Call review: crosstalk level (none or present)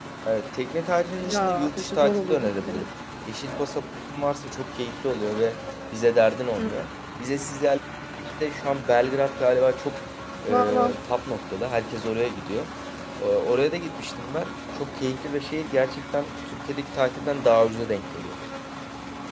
present